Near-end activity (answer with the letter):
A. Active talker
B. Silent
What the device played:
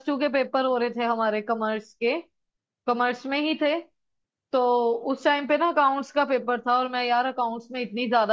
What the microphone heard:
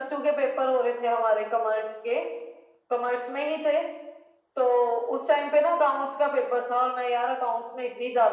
B